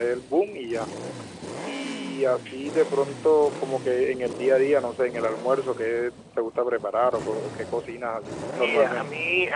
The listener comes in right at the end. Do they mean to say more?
Yes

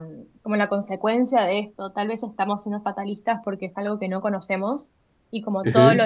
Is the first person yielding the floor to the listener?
No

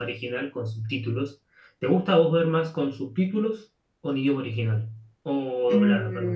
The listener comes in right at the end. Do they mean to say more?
Yes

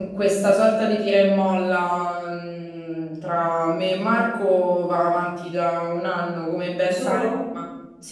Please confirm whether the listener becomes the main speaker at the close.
No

